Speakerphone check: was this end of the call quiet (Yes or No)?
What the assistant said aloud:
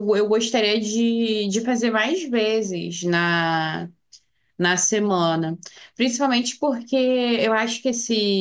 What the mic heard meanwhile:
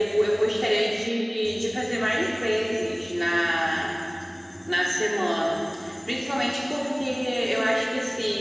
Yes